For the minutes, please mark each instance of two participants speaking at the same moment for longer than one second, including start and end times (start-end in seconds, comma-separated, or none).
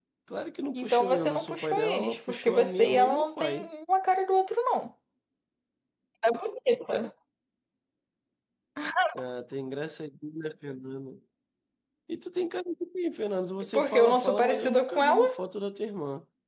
0.8-3.7, 13.7-15.2